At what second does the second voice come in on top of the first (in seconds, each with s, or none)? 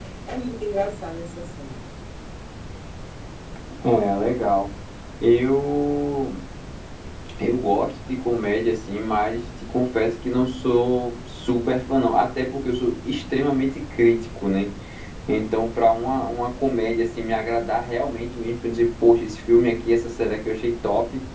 none